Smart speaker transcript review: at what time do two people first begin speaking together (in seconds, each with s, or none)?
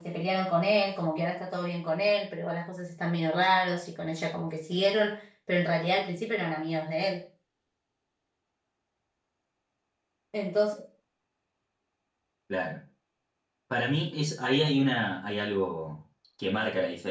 none